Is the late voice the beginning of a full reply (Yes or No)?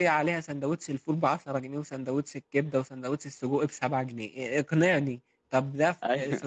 No